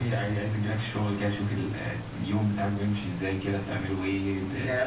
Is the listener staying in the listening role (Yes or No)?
No